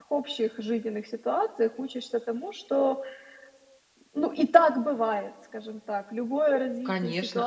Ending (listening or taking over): taking over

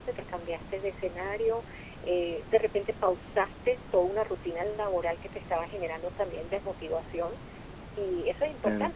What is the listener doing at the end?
listening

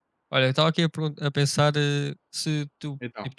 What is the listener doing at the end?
listening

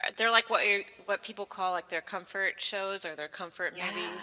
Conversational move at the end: taking over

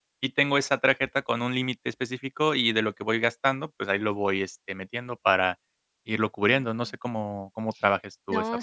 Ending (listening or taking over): taking over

